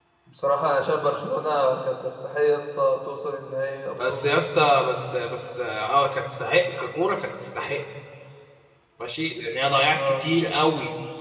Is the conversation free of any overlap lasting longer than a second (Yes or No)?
Yes